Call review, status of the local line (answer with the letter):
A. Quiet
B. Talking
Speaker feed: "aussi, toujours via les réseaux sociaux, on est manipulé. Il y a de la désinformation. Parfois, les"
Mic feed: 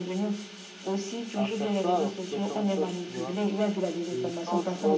B